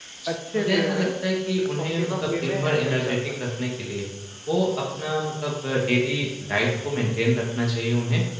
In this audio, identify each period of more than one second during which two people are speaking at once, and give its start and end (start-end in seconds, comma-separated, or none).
1.8-3.5